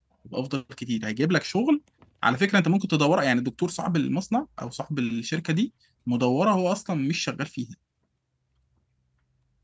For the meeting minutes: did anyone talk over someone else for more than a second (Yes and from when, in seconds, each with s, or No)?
No